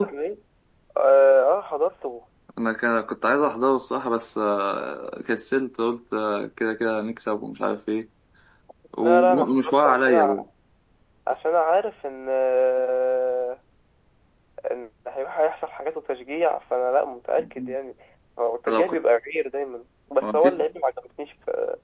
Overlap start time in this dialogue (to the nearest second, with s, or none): 9 s